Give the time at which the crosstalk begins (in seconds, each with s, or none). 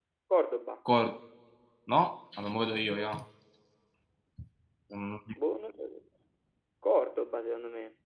none